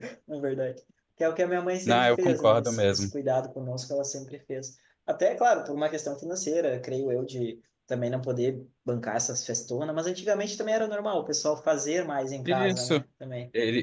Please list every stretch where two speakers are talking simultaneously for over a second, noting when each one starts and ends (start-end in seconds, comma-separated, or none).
1.9-3.1